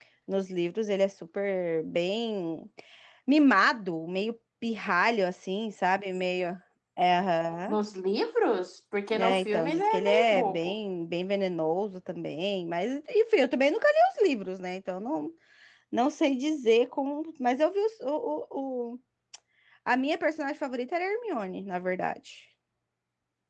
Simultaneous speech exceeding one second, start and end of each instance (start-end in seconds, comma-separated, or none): 9.1-10.8